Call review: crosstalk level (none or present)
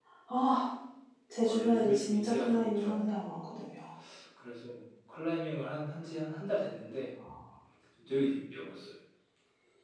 present